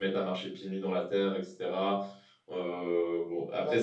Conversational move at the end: listening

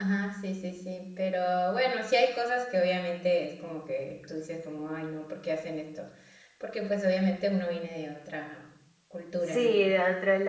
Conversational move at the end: taking over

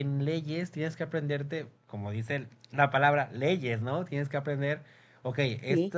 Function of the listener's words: listening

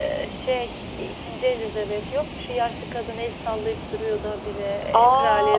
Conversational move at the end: taking over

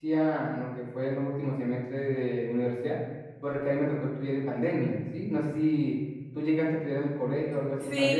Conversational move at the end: taking over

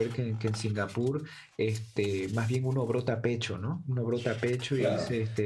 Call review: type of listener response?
listening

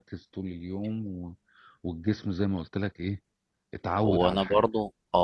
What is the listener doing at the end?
taking over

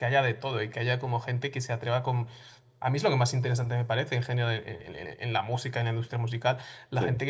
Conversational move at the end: listening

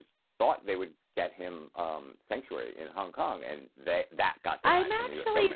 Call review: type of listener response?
taking over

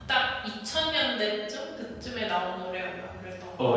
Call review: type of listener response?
taking over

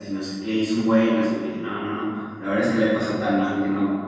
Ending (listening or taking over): listening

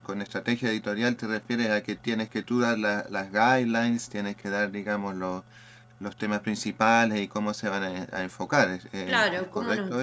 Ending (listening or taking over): taking over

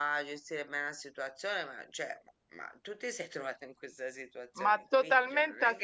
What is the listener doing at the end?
taking over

